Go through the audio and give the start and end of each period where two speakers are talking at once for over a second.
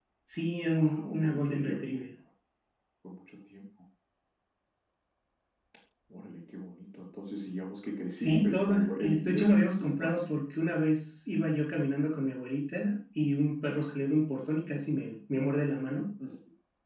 0.8-2.0, 8.2-10.2

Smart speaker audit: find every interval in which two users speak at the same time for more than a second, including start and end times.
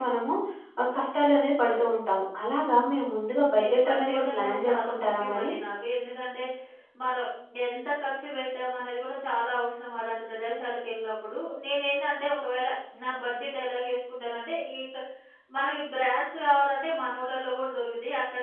3.6-5.5

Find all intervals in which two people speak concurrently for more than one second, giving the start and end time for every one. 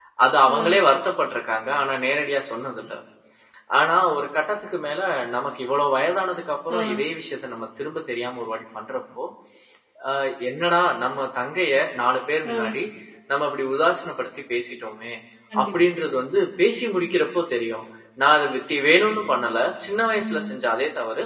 none

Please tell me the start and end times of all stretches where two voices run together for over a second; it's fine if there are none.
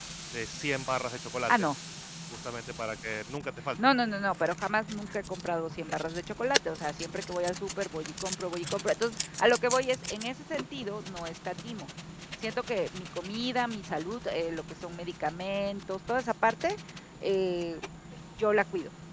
none

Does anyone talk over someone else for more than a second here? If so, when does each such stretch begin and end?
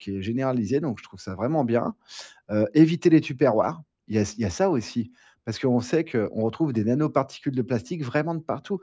none

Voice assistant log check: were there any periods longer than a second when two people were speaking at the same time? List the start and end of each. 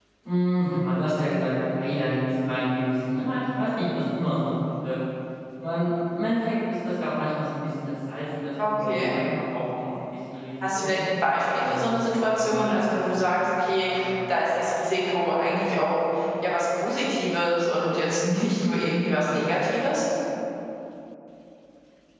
11.6-12.8

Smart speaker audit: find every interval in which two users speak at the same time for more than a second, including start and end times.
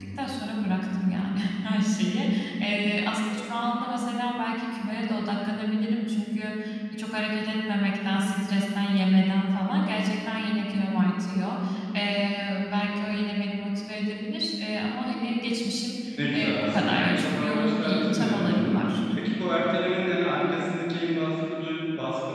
16.3-19.0

